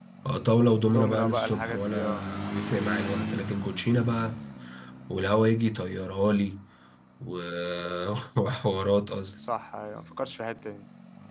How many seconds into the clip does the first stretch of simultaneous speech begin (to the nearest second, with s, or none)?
1 s